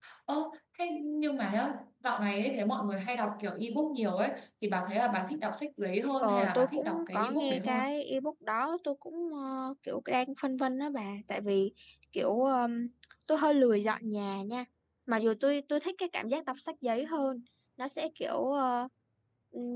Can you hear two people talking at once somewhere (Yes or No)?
Yes